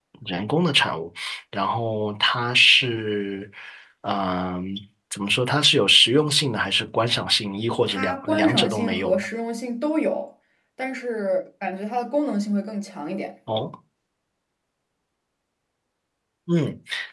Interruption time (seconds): 7.9 s

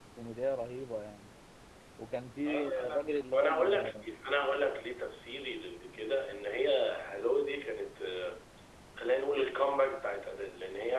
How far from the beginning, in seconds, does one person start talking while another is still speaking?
2.5 s

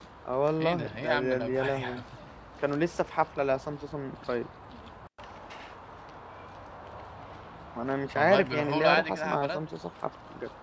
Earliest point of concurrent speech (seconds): 0.6 s

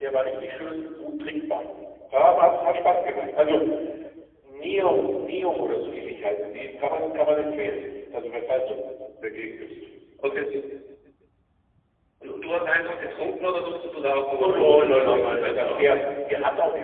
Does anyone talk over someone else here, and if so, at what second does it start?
14.3 s

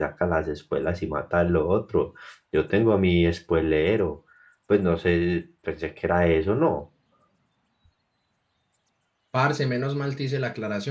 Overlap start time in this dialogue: none

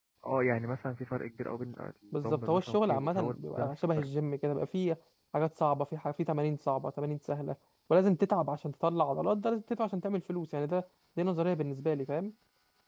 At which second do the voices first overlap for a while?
2.1 s

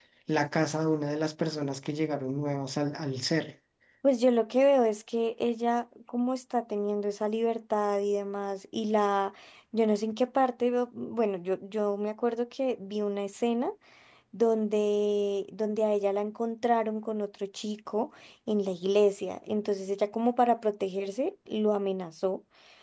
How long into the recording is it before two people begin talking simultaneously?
none

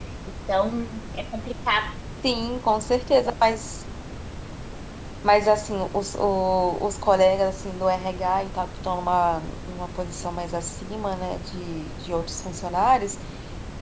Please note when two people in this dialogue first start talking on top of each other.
none

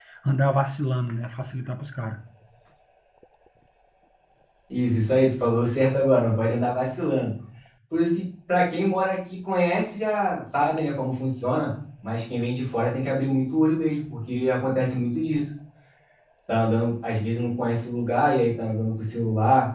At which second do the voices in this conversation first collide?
none

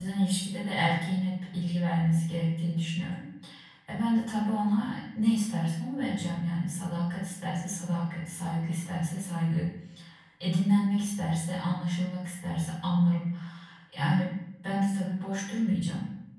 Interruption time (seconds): none

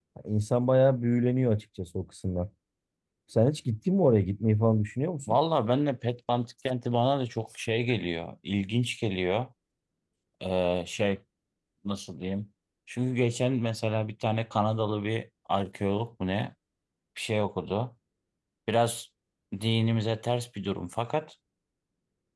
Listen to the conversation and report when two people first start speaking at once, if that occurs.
none

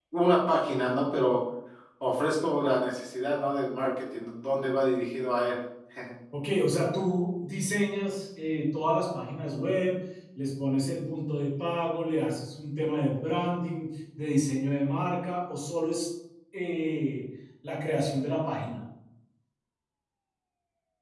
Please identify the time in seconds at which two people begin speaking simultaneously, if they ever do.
none

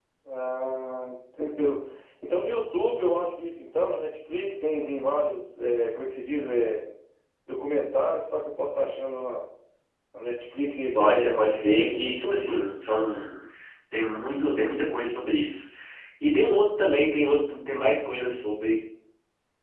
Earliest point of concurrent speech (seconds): 10.9 s

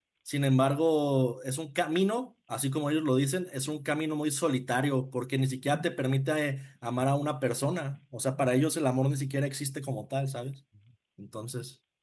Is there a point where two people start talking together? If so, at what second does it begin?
none

